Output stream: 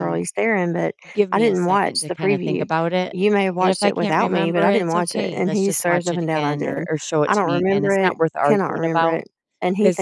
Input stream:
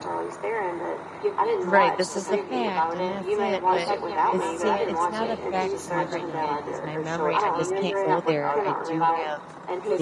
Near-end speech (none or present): present